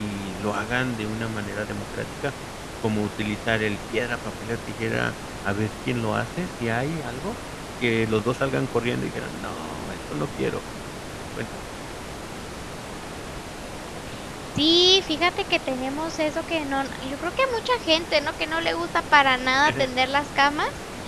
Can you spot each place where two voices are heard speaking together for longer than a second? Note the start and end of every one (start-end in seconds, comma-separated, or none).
none